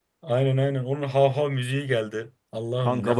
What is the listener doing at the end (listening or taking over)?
taking over